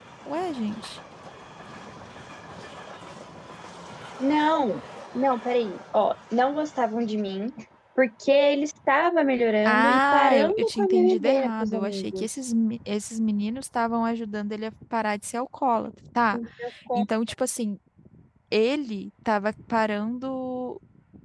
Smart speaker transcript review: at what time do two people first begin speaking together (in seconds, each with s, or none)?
9.6 s